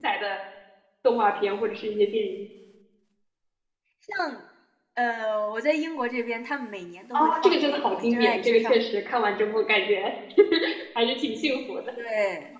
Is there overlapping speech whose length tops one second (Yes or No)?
Yes